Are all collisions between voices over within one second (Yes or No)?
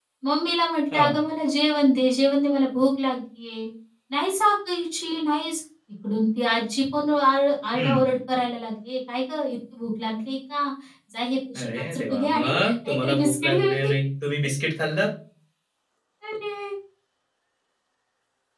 No